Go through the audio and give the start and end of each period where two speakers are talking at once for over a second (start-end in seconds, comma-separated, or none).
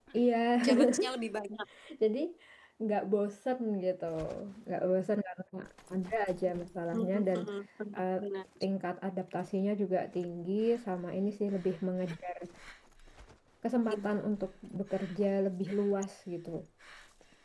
none